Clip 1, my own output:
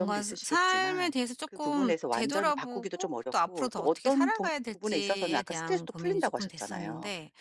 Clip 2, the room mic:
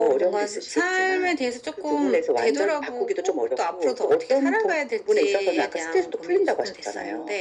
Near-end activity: none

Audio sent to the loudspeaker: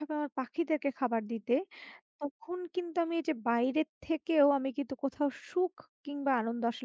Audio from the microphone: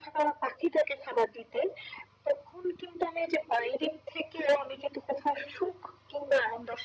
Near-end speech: none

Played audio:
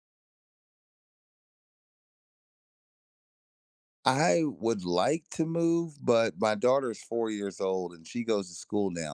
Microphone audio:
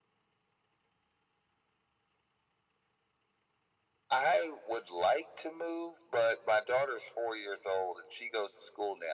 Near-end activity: none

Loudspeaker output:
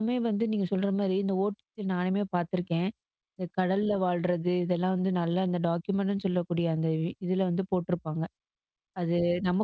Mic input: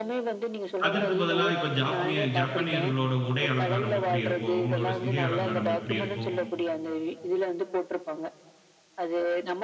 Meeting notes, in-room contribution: present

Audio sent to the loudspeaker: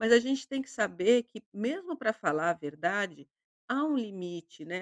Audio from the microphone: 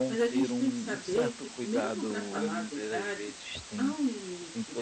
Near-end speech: present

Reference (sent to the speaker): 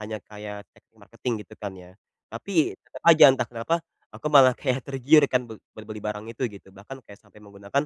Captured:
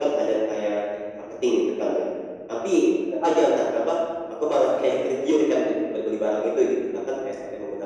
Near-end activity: none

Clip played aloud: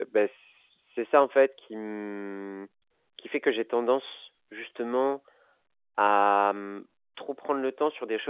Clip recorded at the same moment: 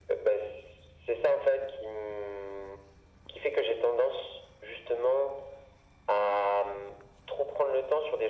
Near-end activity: none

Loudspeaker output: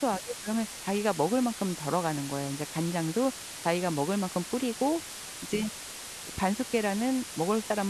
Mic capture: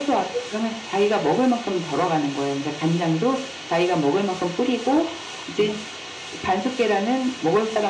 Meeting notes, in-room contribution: none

